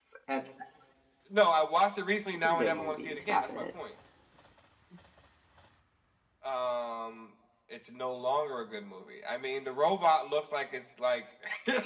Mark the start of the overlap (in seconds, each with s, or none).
2.4 s